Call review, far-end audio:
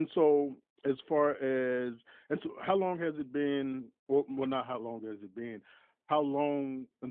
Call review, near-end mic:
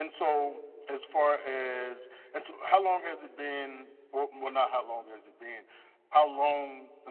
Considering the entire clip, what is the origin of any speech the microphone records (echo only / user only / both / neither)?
echo only